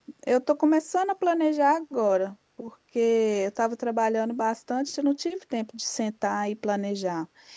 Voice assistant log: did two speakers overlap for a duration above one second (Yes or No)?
No